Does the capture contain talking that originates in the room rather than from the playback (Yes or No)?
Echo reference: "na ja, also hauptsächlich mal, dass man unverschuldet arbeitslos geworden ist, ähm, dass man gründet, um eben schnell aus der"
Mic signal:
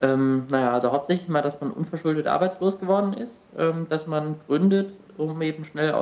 No